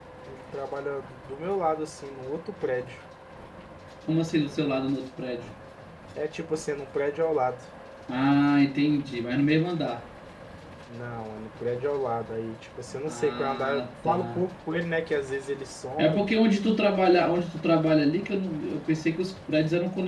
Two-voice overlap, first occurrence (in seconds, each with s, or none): 13.1 s